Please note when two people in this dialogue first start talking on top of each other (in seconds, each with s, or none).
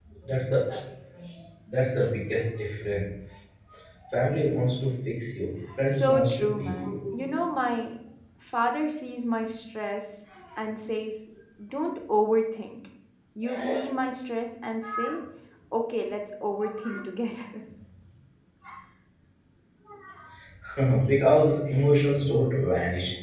5.8 s